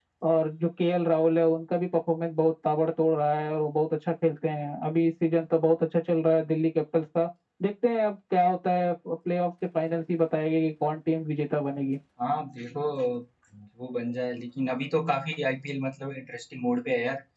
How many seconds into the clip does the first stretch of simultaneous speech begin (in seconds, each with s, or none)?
none